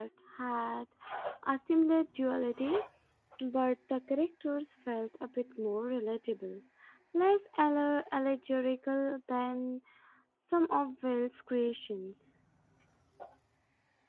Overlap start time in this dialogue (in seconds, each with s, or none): none